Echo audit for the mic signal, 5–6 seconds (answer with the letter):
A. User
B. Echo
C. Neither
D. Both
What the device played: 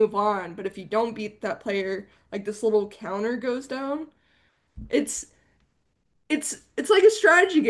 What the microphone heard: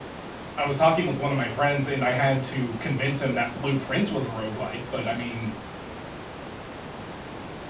A